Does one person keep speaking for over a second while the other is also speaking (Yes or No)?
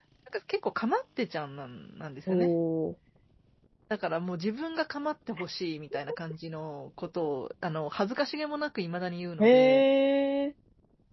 No